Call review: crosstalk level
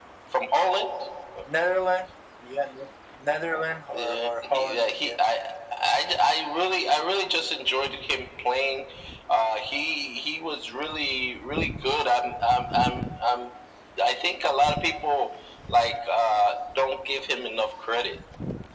present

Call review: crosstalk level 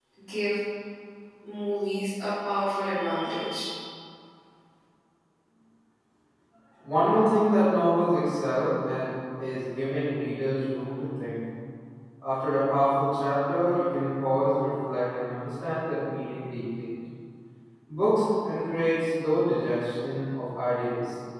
none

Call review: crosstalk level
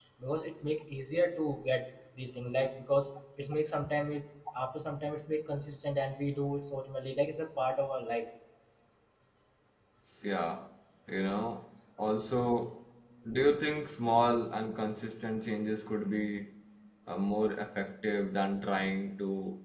none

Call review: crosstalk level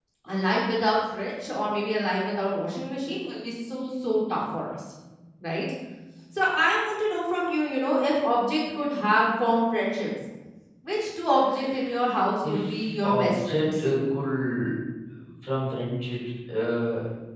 present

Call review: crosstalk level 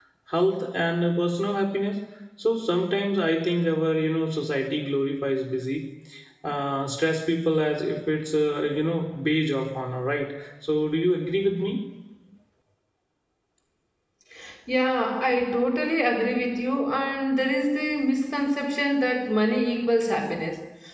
none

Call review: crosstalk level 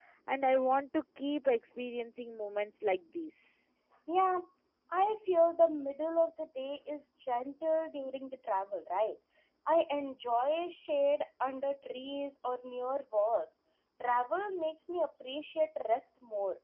none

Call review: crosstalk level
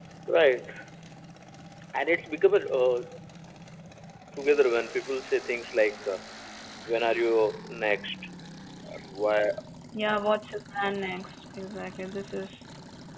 none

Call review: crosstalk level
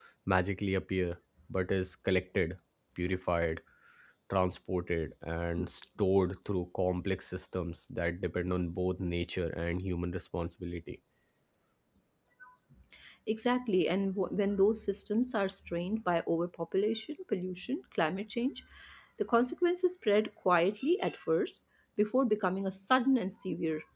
none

